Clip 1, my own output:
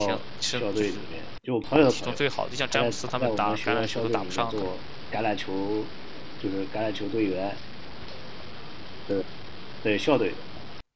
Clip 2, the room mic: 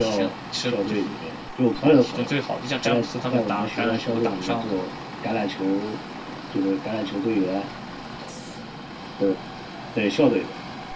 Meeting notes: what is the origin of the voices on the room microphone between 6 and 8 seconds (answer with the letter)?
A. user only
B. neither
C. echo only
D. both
C